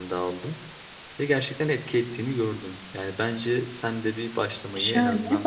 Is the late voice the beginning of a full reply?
Yes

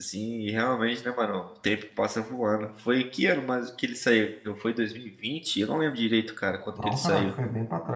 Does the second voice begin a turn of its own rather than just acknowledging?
Yes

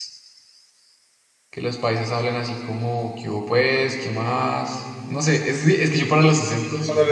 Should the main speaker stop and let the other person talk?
Yes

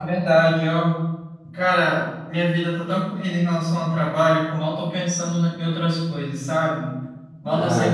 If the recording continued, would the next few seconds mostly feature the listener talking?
No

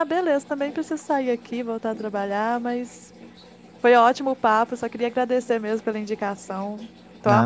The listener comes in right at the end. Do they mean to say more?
Yes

